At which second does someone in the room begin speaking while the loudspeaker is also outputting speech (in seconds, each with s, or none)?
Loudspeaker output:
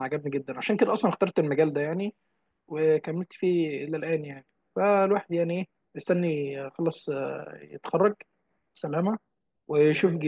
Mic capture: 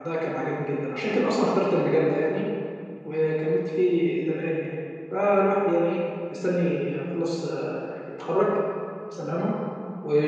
none